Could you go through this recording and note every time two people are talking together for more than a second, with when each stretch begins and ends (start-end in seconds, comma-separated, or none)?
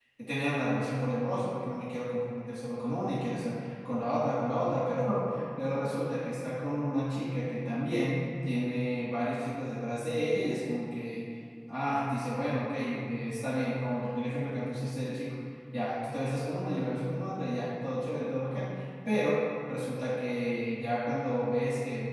none